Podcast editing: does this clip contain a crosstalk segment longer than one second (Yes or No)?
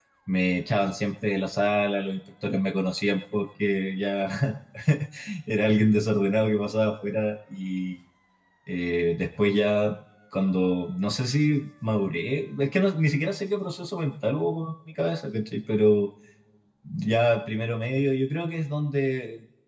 No